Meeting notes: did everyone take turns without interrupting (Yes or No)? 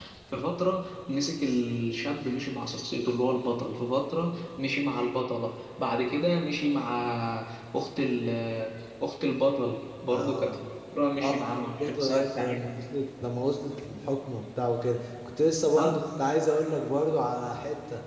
No